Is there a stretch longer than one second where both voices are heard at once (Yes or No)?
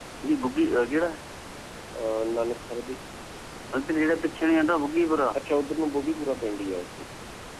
No